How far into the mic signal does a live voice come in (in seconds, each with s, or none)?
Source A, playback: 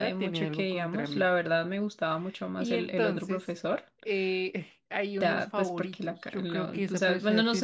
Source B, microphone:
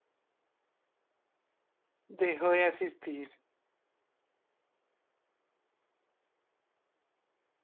2.1 s